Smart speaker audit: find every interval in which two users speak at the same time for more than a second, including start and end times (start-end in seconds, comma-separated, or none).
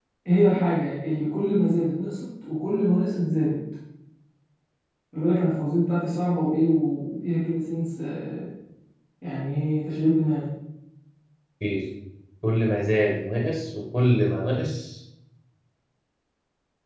none